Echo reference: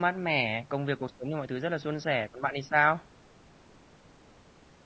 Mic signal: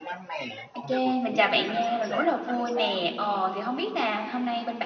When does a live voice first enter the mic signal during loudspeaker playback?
0.7 s

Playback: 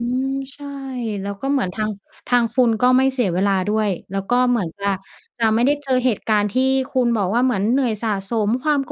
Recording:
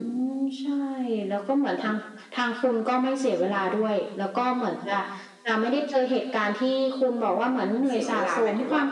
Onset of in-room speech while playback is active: 7.9 s

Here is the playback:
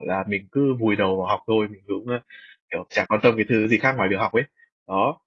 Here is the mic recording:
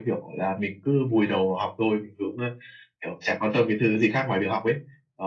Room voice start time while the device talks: none

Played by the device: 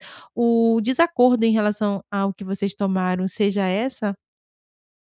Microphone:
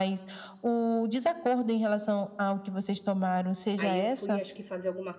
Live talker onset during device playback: 3.7 s

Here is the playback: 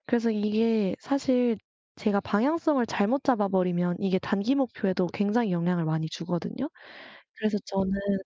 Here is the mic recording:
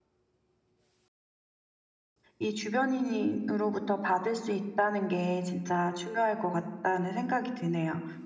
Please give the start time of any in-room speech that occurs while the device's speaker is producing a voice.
2.4 s

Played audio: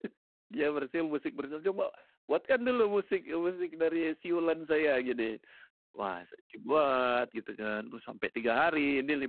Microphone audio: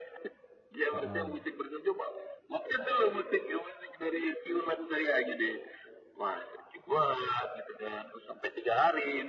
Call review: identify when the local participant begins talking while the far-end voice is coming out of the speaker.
0.9 s

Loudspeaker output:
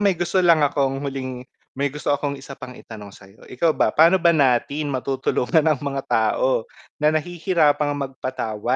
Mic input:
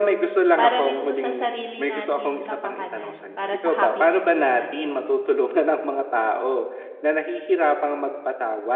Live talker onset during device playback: 0.5 s

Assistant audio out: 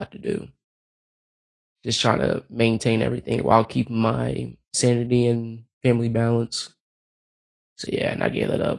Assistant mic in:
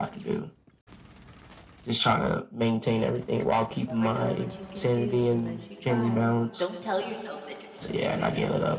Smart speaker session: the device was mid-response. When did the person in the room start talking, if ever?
3.6 s

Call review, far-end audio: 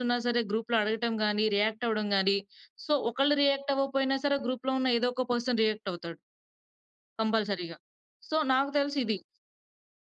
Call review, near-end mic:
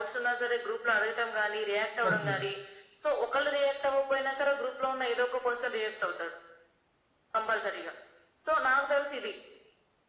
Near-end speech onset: 2.0 s

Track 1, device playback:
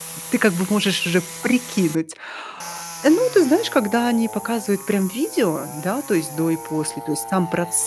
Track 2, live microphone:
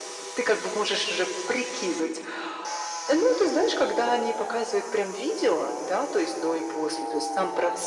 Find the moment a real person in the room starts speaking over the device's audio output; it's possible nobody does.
none

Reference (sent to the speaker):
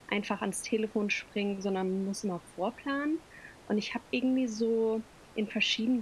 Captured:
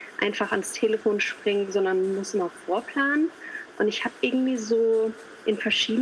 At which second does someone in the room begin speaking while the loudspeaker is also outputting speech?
none

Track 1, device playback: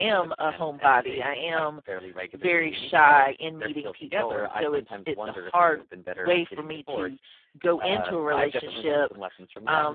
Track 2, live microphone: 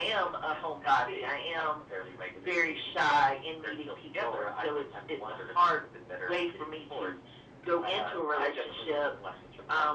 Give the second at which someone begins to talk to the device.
none

